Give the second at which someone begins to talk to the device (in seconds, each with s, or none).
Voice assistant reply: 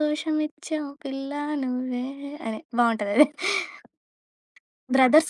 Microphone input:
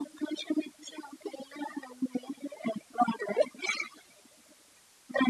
none